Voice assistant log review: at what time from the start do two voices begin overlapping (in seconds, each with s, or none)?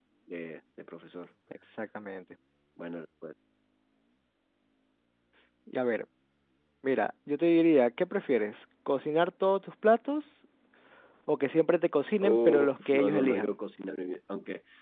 12.2 s